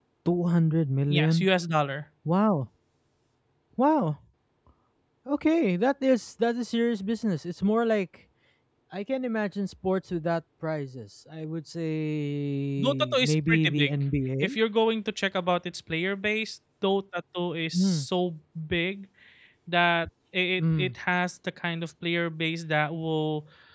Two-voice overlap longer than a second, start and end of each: 12.8-14.0

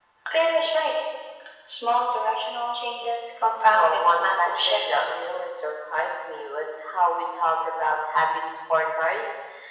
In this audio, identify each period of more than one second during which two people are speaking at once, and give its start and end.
3.7-5.0

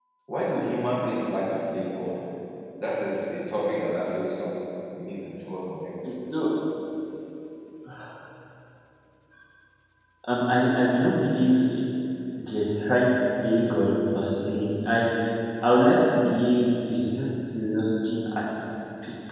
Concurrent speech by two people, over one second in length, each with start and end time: none

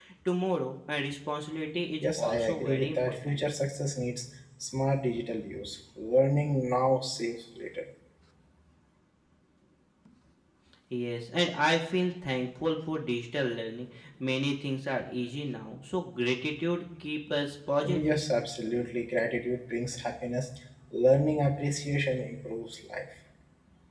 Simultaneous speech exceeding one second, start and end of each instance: 2.0-3.5

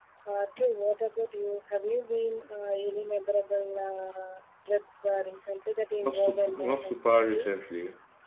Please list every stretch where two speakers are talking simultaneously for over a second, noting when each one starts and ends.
6.0-7.5

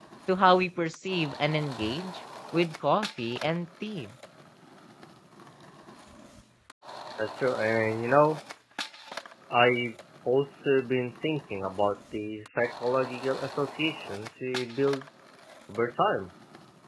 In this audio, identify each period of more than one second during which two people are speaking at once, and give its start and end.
none

